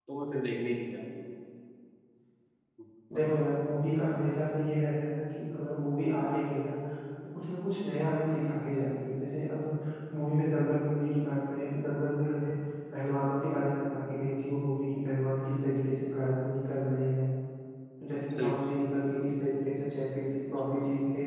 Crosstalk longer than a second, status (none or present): none